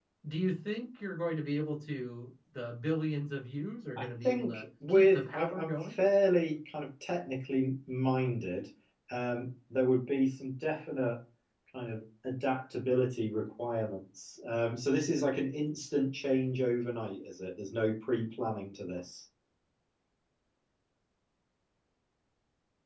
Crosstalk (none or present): present